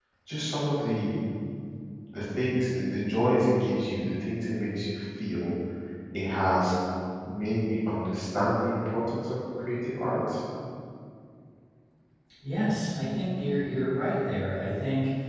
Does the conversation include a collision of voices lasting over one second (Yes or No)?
No